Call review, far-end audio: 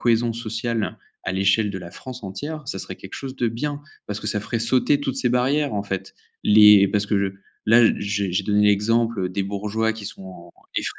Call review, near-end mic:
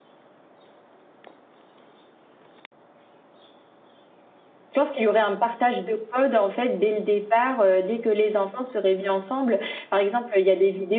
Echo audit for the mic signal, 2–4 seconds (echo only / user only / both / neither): neither